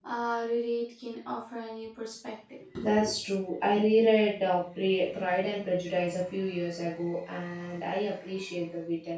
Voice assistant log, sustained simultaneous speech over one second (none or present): none